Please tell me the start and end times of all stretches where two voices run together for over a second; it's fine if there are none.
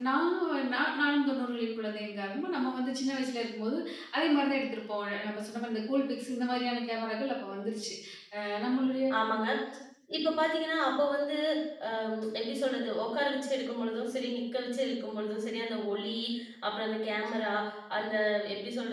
none

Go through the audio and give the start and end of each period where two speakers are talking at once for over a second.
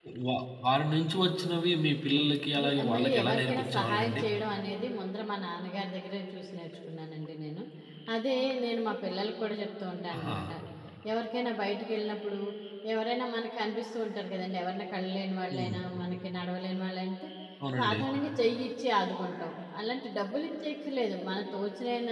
2.6-4.2

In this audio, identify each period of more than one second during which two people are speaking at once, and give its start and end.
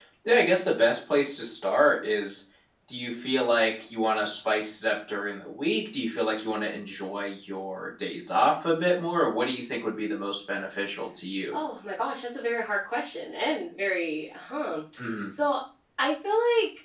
none

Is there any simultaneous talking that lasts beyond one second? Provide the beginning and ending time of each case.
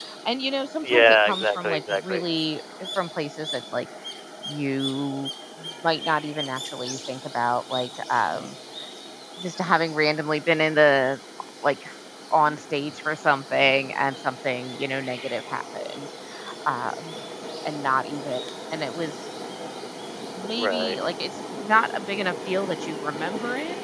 0.8-2.2

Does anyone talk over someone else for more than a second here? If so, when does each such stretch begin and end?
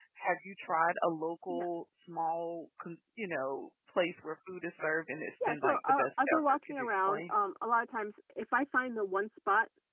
5.5-7.3

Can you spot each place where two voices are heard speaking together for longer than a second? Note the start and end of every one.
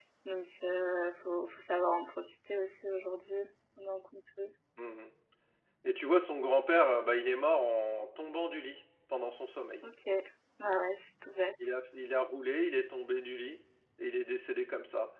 none

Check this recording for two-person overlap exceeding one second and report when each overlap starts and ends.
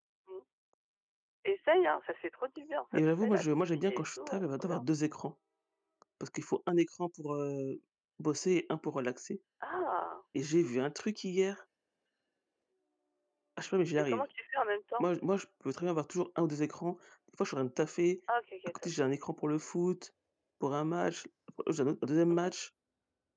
2.9-4.8

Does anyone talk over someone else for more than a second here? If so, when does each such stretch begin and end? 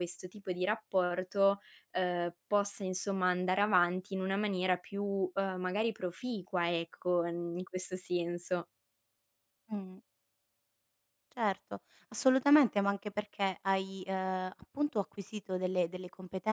none

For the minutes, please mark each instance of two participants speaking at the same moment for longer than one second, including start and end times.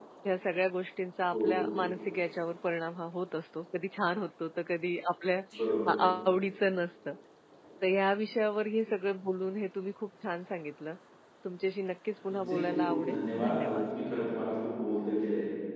12.3-13.9

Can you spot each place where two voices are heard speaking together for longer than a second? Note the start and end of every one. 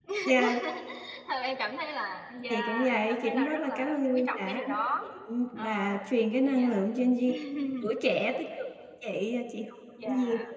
2.5-5.0

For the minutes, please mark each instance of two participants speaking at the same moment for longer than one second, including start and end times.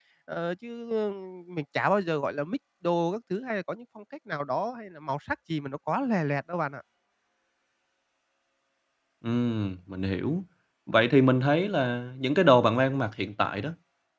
none

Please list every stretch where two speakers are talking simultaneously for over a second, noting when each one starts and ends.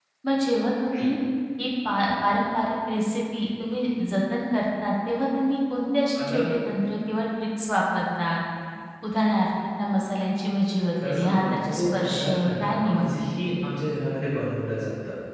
11.0-13.2

